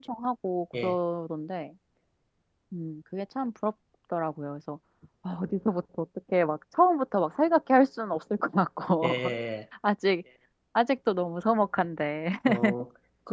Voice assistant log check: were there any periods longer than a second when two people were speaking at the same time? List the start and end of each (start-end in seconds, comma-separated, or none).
none